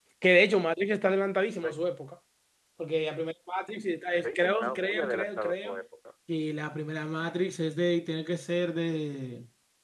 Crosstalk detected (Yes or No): Yes